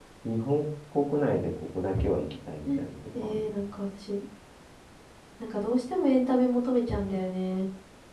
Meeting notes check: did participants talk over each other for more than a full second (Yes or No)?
No